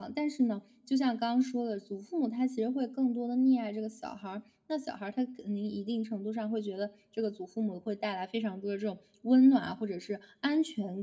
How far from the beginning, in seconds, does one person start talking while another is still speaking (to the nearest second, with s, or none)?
none